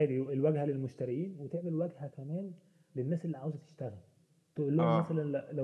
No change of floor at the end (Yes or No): Yes